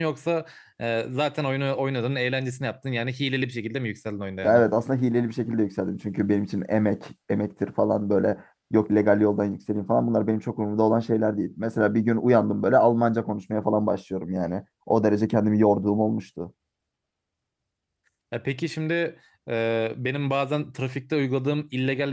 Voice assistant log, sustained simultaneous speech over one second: none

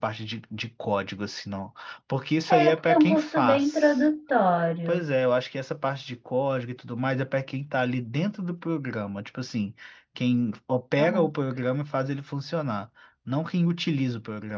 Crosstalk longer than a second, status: present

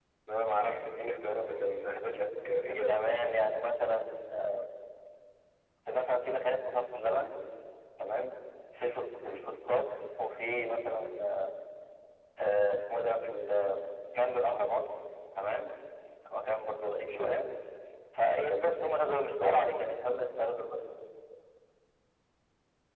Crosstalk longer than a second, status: none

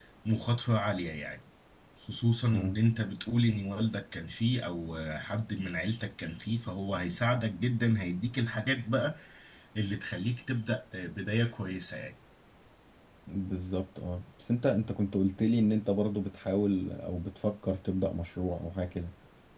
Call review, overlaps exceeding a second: none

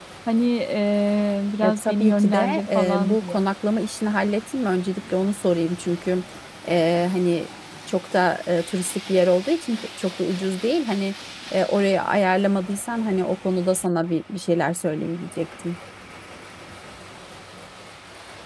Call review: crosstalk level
present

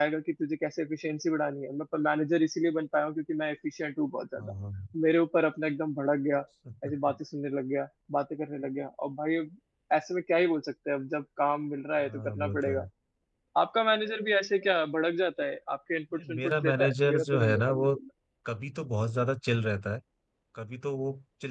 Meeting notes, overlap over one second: present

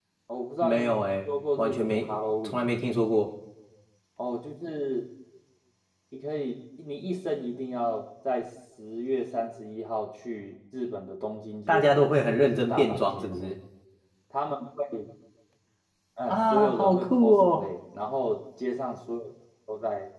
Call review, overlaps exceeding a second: present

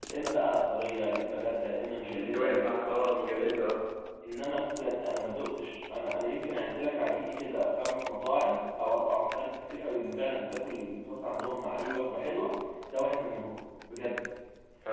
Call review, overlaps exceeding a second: present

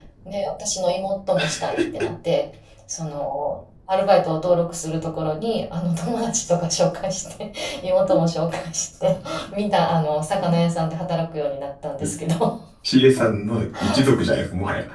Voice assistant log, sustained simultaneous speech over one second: none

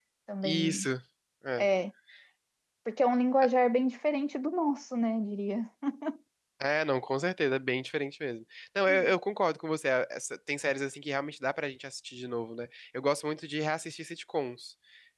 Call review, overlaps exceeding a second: none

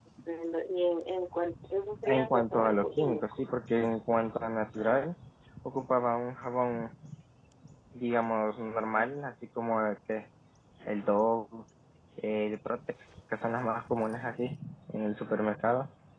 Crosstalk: present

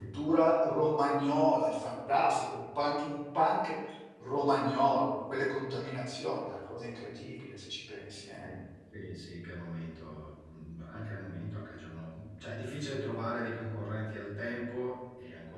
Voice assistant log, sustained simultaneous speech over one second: none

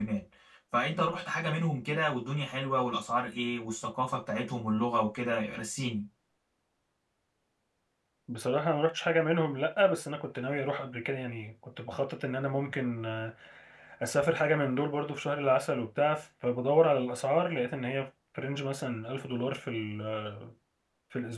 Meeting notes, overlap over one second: none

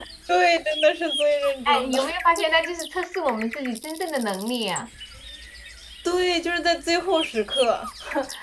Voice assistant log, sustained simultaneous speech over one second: none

